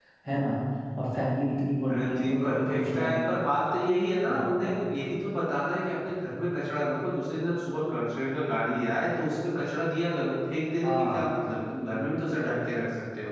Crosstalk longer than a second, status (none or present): present